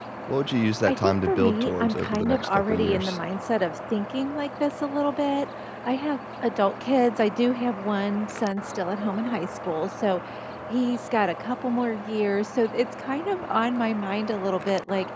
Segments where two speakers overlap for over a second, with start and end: 0.9-3.2

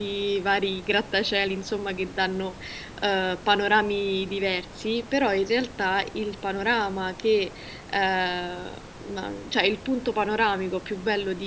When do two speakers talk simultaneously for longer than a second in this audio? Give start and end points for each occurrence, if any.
none

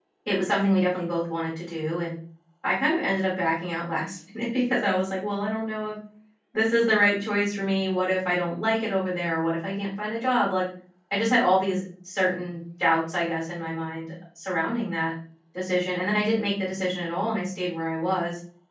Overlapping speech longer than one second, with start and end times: none

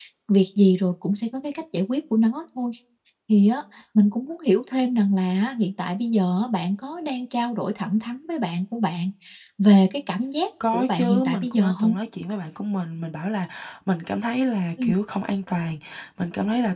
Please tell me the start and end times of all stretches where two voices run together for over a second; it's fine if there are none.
10.7-12.0

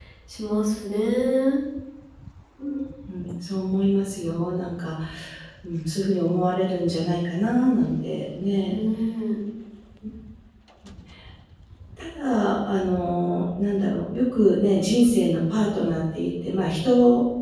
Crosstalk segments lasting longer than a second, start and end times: none

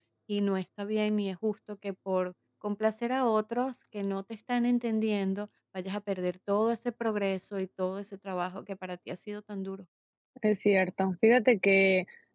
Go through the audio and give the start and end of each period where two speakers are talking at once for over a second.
none

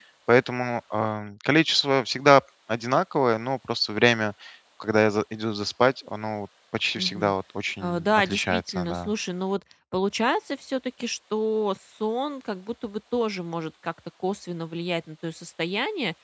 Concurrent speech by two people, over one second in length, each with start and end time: 7.8-9.1

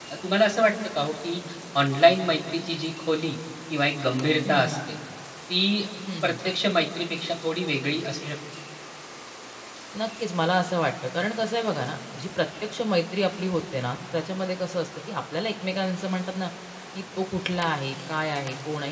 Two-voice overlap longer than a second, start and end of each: none

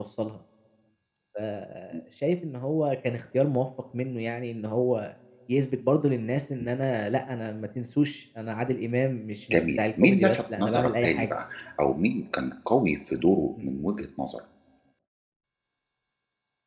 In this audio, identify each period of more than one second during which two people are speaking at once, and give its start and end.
9.5-11.3

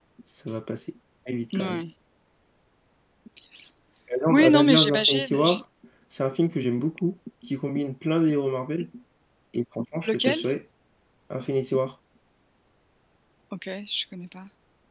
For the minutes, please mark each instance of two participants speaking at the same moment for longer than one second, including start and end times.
4.3-5.6

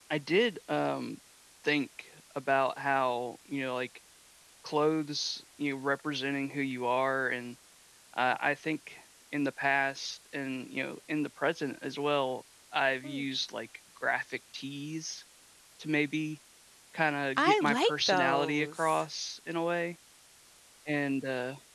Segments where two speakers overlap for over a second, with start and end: 17.4-19.0

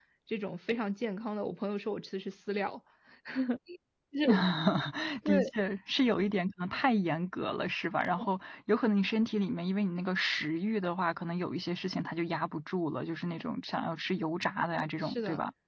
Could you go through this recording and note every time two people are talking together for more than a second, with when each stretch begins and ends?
none

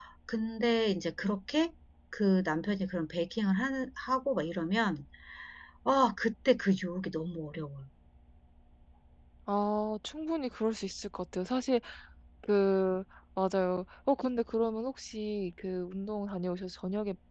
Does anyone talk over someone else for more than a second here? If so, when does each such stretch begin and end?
none

